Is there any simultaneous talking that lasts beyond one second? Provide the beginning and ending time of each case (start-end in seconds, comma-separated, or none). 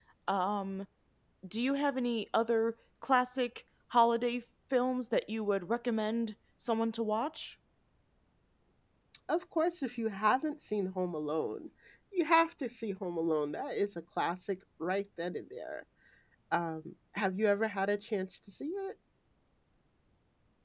none